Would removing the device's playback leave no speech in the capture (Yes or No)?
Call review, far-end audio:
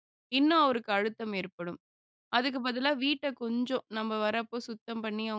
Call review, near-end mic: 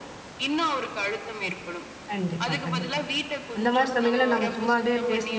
No